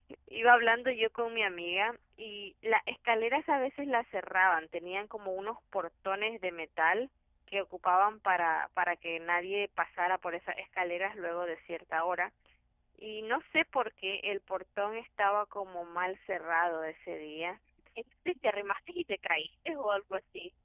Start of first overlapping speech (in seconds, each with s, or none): none